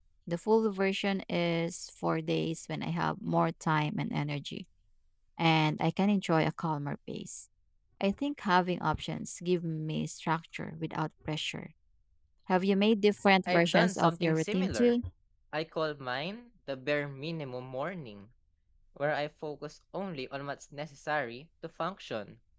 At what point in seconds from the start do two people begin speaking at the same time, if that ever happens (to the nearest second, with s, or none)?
13 s